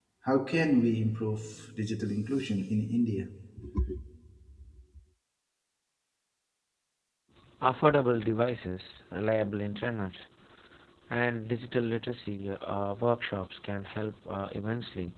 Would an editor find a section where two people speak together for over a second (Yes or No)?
No